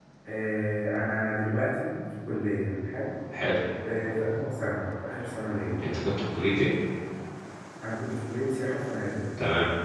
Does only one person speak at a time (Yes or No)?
Yes